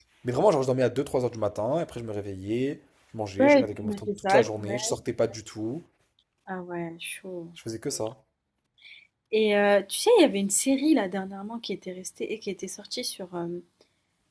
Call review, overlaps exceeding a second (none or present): present